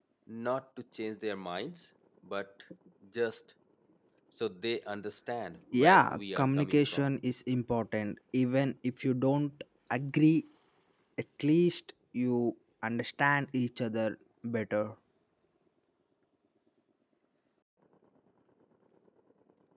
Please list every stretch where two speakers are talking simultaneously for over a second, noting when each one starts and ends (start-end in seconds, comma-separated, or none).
5.8-7.1